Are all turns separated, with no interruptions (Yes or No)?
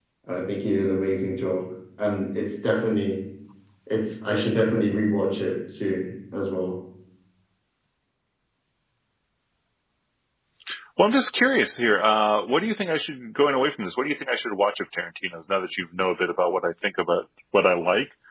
Yes